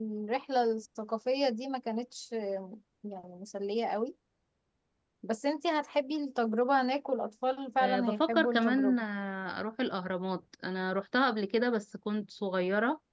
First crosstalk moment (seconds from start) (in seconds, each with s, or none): 7.8 s